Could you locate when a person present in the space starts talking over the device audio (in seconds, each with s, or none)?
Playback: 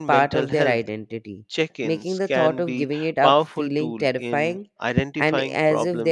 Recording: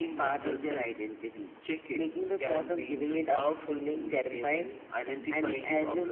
none